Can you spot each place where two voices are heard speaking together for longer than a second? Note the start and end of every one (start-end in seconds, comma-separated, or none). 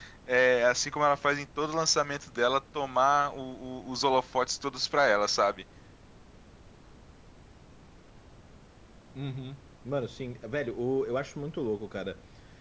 none